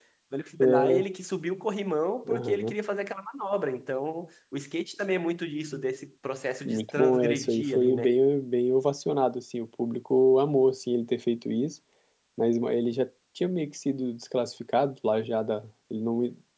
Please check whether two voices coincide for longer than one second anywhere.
Yes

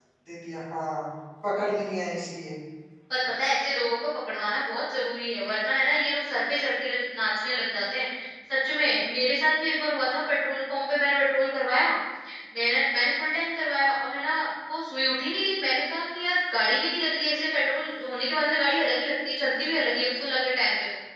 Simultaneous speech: No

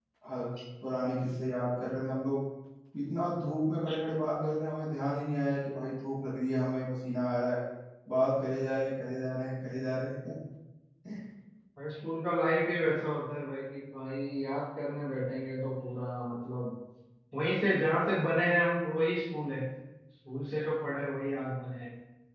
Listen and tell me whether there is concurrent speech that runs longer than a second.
No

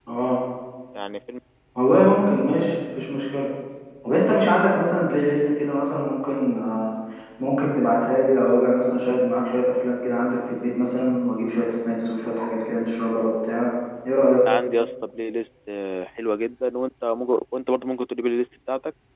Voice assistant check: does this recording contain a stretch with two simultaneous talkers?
No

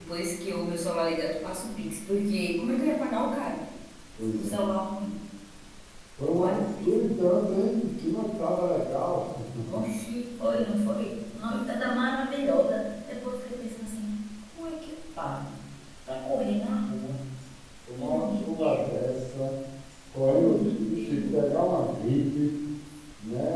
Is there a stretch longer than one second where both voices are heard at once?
Yes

